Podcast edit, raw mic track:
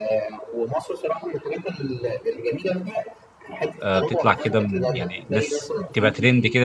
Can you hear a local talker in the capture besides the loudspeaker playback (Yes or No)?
Yes